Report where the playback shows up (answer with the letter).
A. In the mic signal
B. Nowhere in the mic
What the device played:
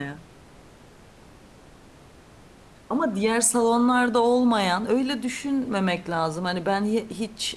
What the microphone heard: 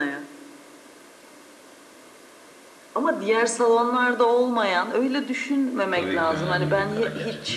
A